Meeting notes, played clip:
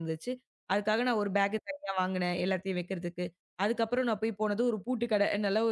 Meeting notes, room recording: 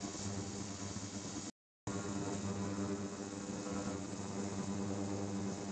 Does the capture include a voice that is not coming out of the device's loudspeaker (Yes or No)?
No